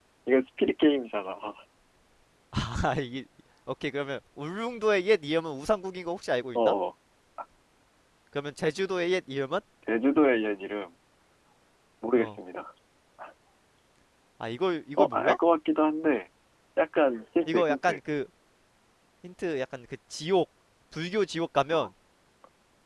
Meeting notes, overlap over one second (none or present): none